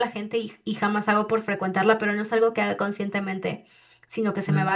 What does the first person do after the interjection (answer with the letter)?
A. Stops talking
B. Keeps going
B